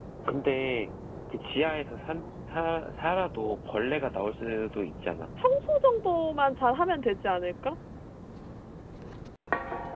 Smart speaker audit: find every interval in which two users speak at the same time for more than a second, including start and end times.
none

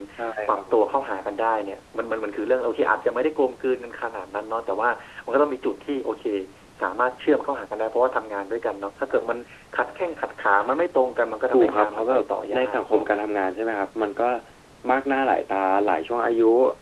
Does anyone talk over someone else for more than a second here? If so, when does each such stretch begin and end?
11.5-13.0

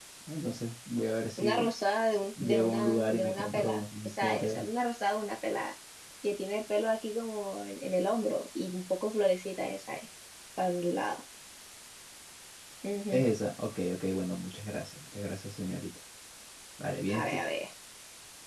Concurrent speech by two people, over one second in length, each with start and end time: 2.4-4.7

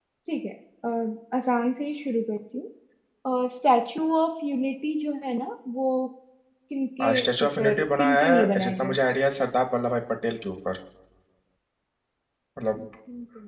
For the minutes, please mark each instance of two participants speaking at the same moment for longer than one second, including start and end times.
7.2-9.0

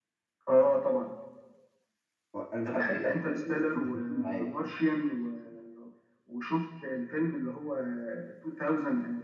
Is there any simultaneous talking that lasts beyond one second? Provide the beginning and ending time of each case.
2.6-4.5

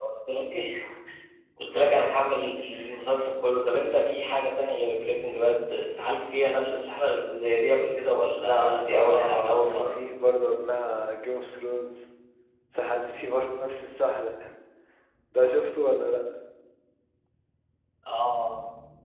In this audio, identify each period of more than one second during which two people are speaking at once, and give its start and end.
8.4-9.9

